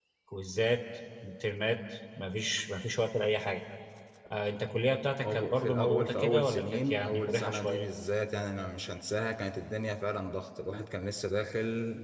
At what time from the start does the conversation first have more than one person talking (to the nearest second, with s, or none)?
5 s